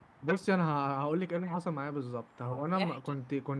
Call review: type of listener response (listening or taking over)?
listening